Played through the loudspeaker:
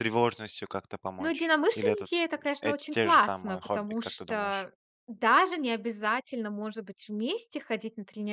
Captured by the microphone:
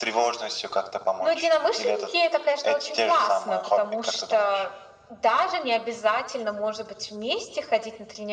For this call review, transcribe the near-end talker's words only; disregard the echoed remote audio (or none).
none